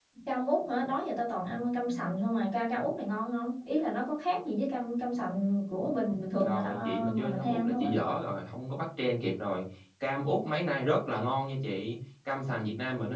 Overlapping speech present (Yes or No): Yes